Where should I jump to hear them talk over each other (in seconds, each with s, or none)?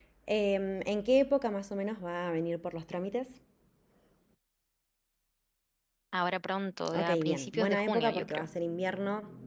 7.0 s